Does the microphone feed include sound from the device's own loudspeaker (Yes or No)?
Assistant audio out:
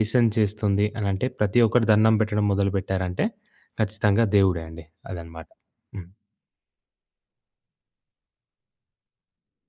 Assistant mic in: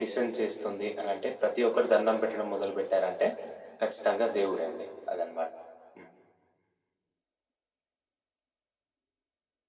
Yes